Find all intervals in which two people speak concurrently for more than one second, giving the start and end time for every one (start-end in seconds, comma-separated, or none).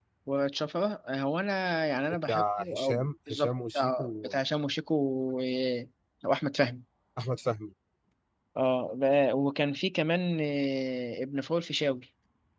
2.3-4.3